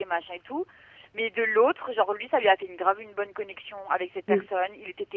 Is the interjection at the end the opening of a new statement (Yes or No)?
No